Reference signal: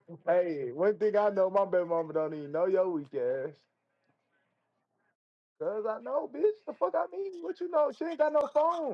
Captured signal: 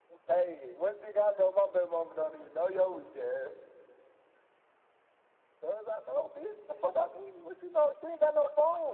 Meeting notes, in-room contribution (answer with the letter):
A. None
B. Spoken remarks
A